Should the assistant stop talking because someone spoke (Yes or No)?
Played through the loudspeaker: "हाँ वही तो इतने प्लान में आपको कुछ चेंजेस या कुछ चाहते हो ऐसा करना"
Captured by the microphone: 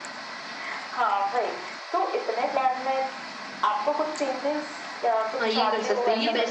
Yes